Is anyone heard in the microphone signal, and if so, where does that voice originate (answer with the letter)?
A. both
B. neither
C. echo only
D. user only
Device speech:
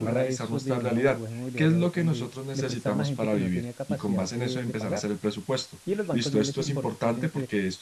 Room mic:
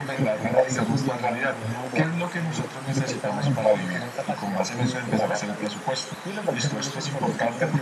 C